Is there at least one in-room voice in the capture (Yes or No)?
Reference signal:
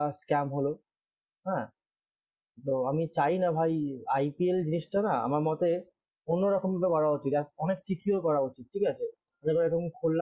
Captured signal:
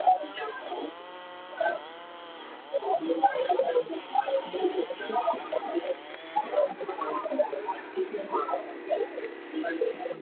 No